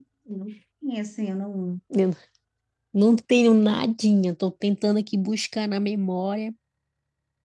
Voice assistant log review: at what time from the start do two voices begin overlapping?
none

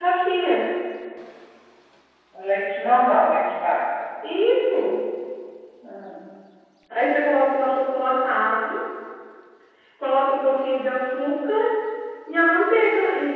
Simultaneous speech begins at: none

